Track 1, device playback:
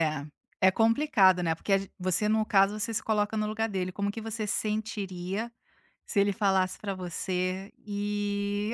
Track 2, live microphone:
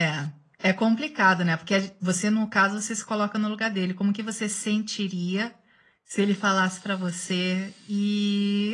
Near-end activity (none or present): none